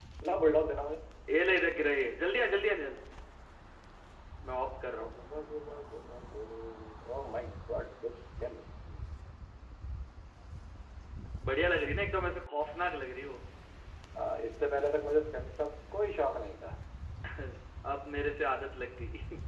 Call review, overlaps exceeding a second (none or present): none